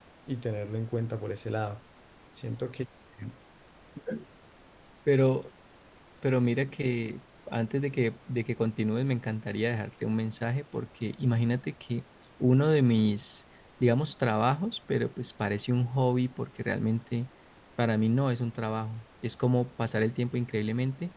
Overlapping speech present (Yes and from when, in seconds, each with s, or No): No